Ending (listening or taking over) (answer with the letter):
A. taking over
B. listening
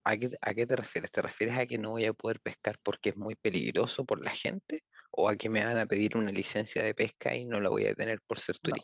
A